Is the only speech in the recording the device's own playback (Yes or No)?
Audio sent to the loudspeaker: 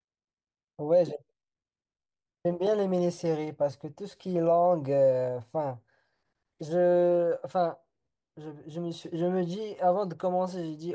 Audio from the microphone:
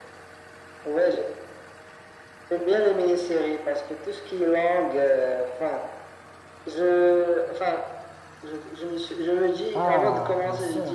No